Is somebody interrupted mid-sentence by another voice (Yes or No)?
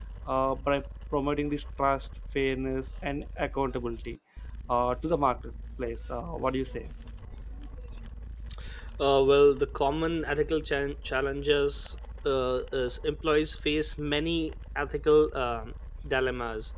No